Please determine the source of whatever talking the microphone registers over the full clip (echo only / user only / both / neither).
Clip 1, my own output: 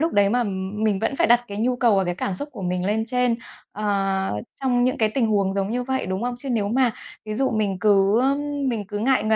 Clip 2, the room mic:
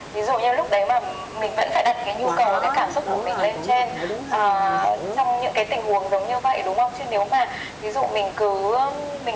both